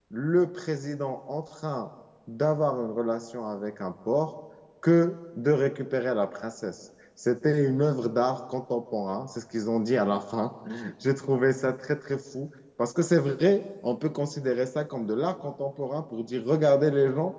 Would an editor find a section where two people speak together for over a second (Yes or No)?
No